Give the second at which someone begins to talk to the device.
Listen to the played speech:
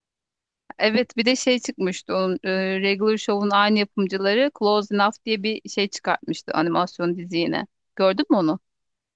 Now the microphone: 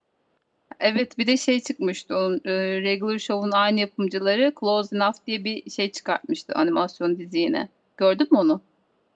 none

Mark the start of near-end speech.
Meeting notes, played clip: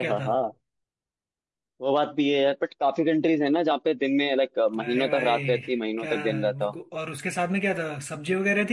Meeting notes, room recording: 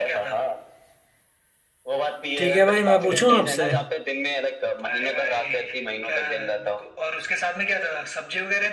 2.4 s

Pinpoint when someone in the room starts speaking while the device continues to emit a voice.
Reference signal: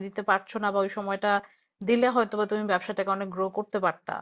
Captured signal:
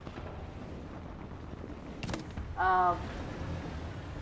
2.6 s

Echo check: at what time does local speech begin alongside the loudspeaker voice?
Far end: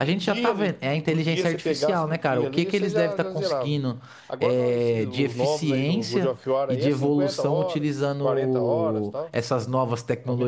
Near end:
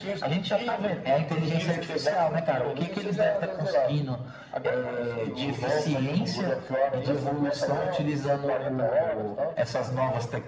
none

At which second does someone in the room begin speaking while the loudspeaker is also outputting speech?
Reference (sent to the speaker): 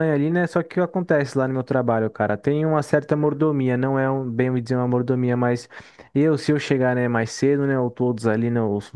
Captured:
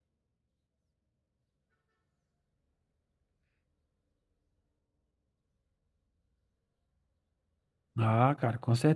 8.0 s

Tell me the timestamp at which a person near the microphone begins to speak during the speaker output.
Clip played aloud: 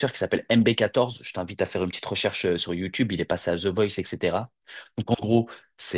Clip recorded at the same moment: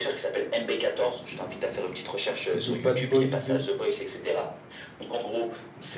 2.4 s

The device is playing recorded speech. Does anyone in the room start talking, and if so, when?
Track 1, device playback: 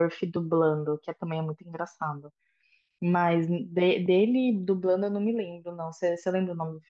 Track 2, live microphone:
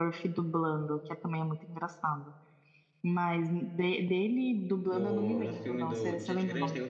4.8 s

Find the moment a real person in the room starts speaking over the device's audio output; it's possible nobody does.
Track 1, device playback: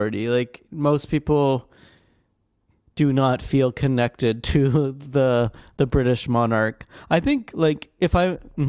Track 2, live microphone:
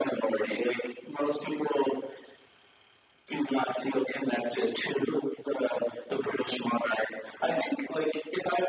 none

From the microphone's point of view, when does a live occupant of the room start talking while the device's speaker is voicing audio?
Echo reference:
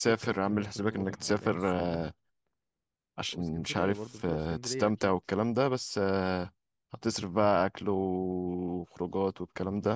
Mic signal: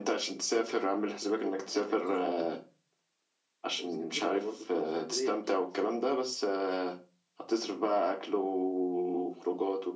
none

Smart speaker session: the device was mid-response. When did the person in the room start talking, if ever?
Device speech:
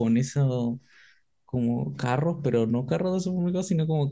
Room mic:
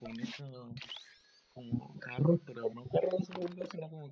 none

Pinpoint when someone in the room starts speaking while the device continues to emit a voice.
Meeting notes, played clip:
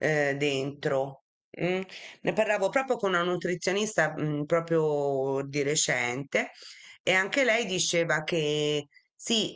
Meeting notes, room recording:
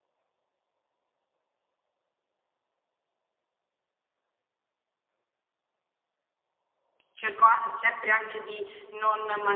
7.1 s

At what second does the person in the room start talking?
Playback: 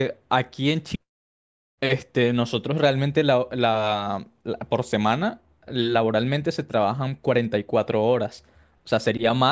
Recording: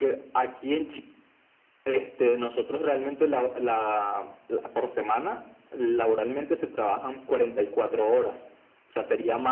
none

